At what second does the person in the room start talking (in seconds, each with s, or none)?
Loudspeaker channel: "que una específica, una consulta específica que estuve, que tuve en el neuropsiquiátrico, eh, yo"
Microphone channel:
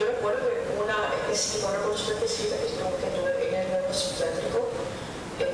none